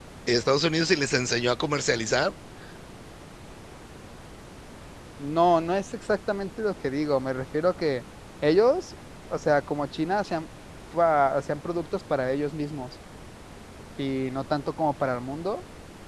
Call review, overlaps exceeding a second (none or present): none